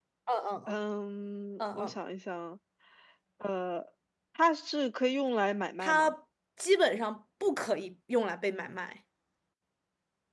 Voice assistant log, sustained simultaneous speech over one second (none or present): none